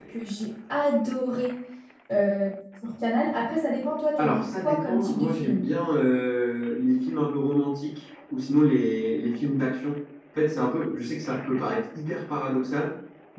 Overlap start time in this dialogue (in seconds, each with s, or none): 4.2 s